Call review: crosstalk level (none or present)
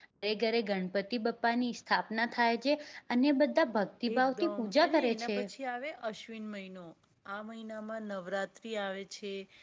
present